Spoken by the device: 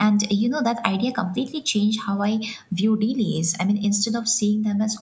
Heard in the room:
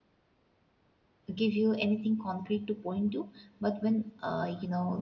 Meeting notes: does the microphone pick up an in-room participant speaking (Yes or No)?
Yes